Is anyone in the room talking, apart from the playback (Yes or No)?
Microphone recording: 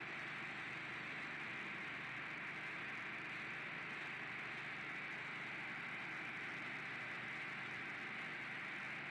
No